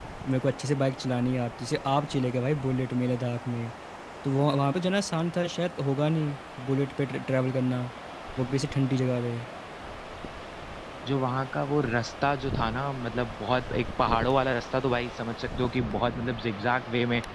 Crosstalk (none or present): none